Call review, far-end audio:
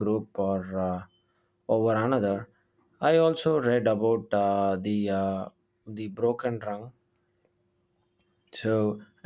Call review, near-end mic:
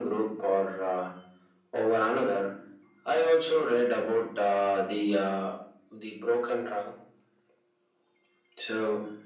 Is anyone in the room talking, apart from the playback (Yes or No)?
No